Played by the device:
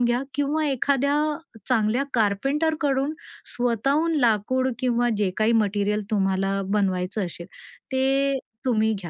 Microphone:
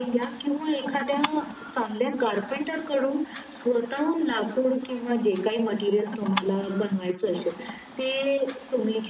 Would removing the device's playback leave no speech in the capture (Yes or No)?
Yes